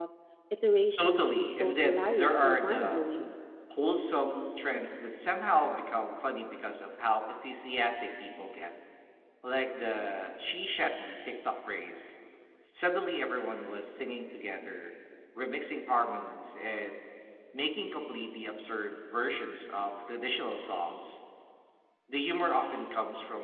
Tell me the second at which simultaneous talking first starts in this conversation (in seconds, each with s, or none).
1.0 s